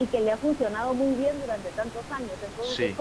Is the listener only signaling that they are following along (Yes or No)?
Yes